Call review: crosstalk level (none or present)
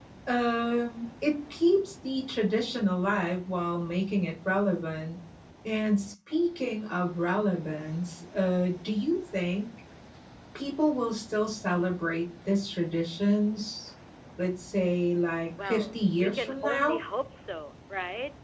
present